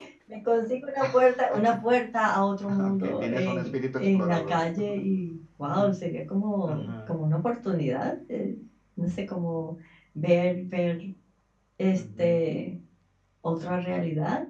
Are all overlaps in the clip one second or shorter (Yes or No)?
No